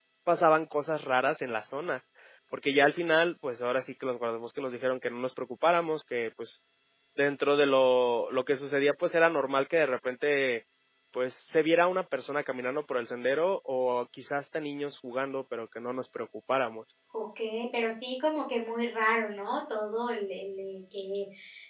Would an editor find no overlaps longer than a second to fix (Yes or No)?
Yes